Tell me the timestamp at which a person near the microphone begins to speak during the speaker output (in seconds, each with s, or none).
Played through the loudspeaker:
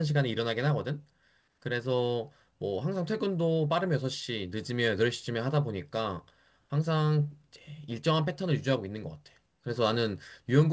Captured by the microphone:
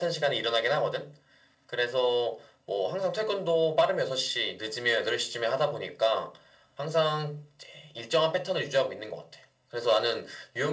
none